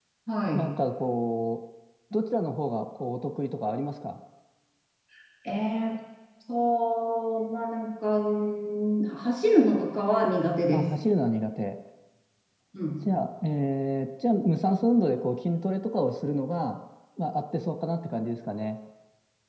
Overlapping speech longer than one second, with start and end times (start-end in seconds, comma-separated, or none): none